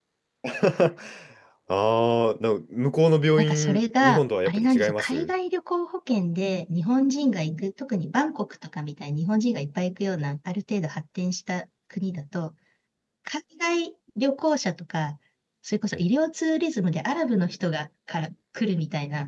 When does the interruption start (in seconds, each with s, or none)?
3.4 s